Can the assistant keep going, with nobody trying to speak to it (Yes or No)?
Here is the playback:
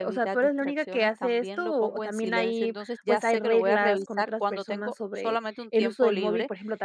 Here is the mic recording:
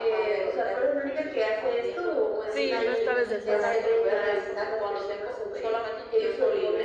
No